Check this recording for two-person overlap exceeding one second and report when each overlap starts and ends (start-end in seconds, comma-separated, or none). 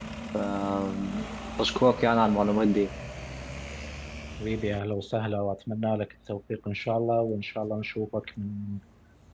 none